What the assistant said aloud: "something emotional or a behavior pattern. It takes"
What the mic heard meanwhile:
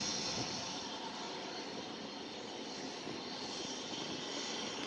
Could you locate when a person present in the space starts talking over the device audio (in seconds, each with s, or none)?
none